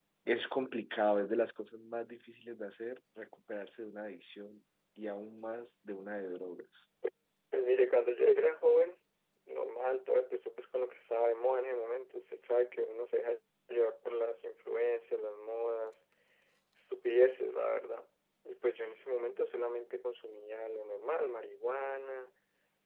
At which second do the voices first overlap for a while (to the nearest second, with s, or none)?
none